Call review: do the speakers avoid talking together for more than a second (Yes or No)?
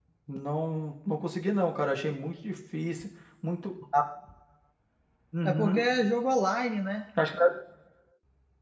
Yes